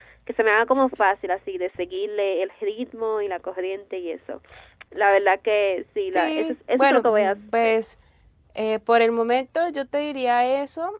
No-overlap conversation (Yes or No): No